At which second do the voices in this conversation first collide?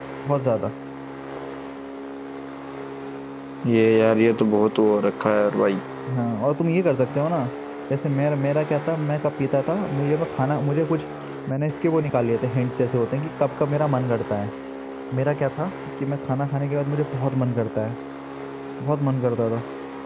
none

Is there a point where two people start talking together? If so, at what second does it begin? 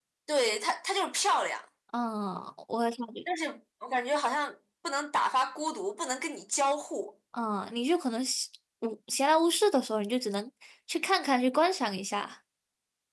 none

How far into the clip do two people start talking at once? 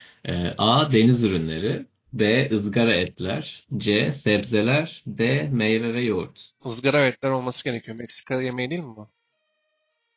none

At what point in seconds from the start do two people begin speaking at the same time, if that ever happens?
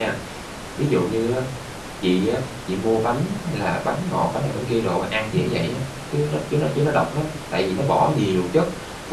none

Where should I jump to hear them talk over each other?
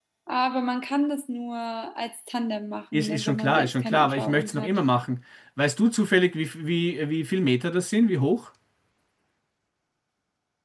2.9 s

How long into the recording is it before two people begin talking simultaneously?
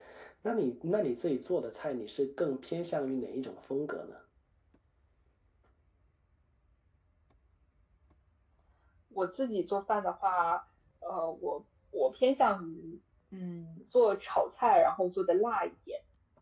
none

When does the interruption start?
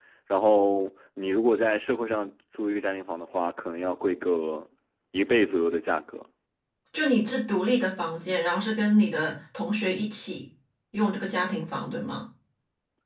none

